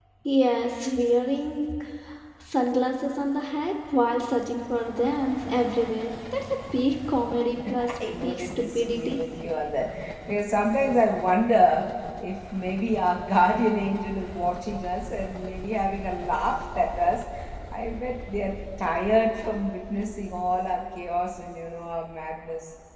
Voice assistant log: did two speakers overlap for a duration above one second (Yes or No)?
Yes